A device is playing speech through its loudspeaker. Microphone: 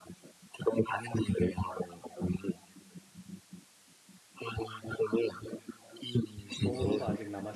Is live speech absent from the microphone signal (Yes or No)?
No